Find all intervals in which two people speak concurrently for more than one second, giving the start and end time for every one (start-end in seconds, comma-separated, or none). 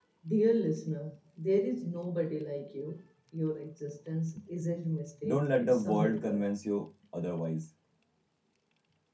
5.2-6.5